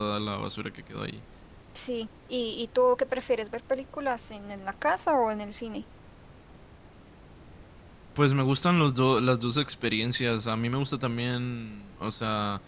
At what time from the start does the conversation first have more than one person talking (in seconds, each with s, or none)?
none